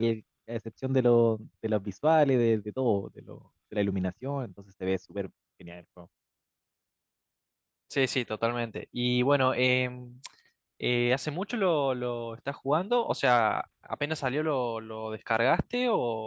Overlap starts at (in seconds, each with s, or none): none